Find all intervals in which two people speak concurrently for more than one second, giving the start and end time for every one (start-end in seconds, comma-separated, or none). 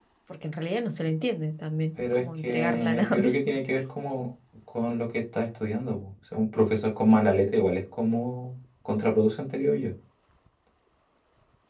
2.1-3.5